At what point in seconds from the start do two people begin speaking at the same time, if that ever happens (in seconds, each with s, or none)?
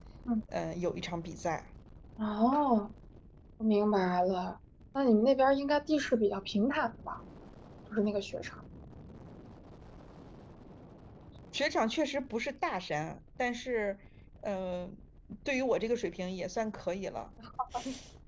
none